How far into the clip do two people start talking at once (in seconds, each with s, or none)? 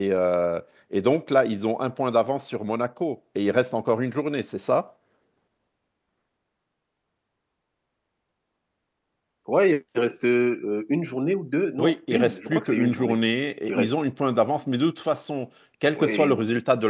11.8 s